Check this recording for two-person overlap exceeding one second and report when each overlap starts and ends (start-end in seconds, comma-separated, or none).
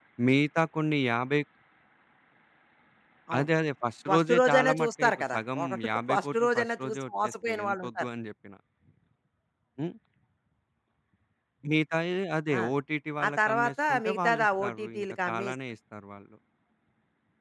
4.1-8.0, 13.2-15.5